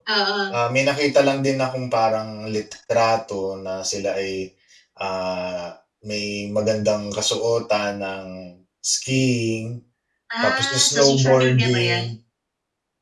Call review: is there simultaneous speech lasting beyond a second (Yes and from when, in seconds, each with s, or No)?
Yes, from 10.4 s